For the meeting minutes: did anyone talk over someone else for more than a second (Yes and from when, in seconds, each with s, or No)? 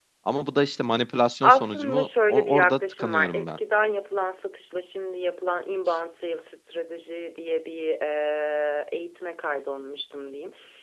Yes, from 1.4 s